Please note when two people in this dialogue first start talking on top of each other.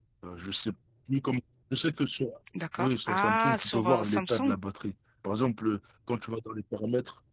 3 s

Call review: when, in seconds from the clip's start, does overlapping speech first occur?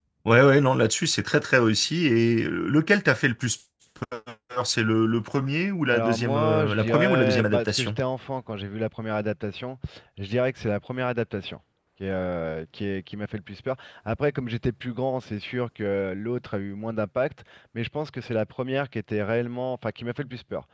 6 s

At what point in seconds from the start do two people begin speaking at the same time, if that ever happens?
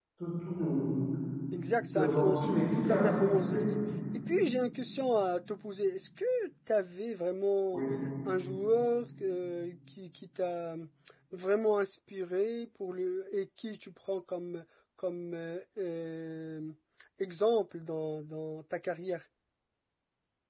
2 s

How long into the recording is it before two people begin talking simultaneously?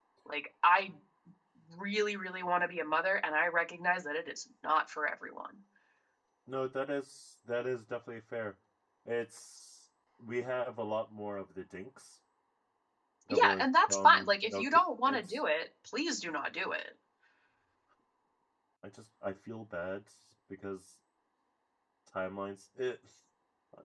13 s

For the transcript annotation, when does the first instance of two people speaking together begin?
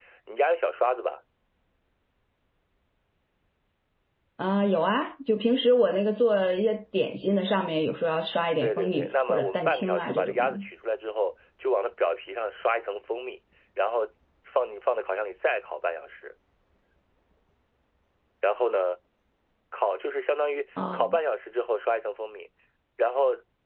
9 s

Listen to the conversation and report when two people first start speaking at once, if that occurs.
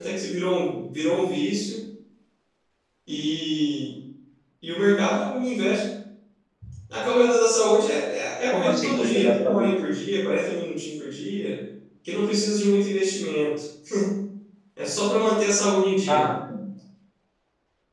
9 s

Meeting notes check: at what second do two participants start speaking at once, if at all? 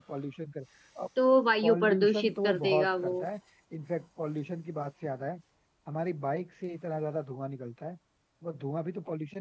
2 s

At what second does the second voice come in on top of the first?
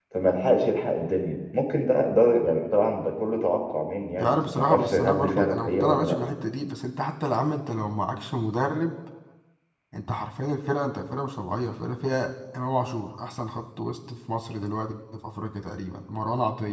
4 s

